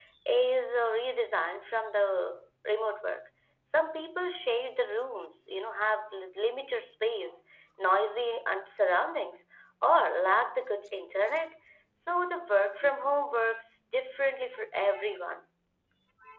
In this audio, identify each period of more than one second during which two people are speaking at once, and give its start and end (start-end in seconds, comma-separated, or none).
none